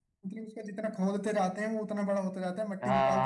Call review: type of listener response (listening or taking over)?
taking over